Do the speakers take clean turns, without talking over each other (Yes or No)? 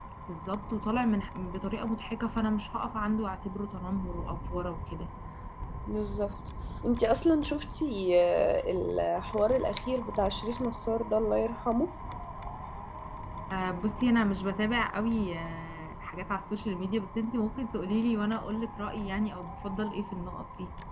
Yes